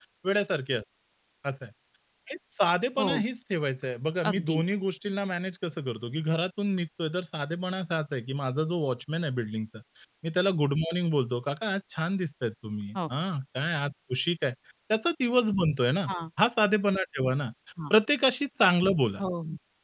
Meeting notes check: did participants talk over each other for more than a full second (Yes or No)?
No